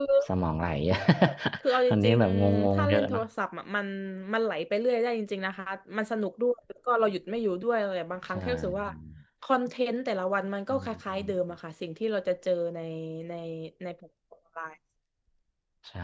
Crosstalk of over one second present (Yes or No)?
Yes